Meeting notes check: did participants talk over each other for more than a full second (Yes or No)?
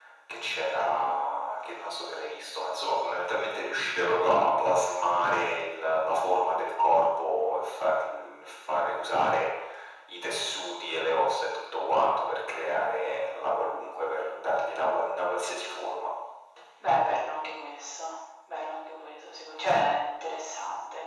No